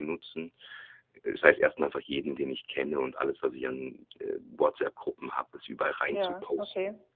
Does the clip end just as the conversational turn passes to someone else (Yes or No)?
No